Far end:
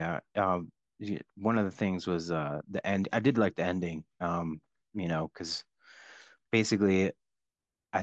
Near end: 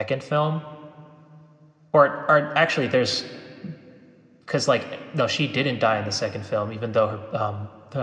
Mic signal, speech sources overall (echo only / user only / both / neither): user only